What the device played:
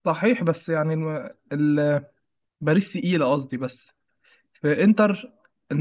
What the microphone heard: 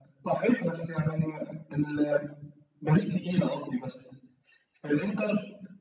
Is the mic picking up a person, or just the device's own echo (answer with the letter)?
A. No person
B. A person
A